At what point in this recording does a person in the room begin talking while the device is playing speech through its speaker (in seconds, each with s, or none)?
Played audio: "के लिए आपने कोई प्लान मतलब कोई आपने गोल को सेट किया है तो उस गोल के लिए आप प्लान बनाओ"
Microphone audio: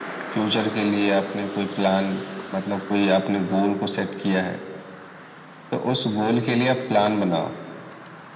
none